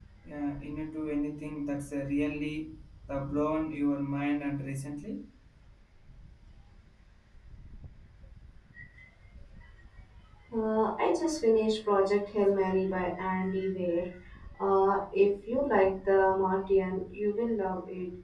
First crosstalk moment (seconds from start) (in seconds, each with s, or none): none